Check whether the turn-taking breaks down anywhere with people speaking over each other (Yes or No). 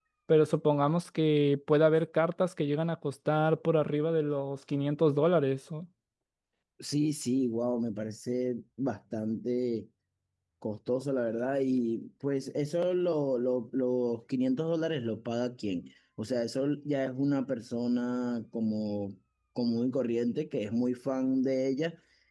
No